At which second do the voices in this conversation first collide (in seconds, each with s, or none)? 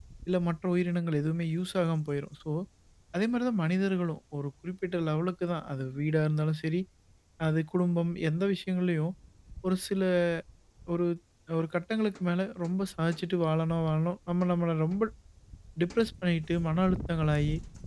none